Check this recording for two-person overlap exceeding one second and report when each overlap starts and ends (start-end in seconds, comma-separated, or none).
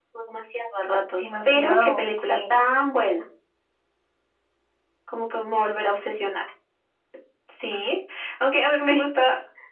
1.2-2.5